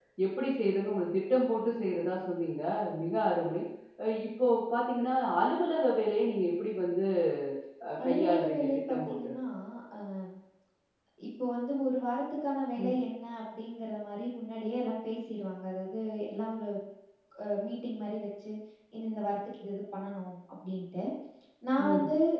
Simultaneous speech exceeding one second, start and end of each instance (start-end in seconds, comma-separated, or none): 8.0-9.3